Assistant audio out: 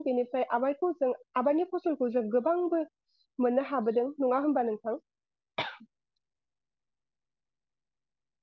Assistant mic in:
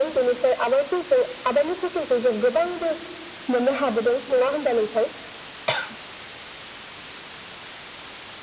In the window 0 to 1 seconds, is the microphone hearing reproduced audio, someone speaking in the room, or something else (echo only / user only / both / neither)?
echo only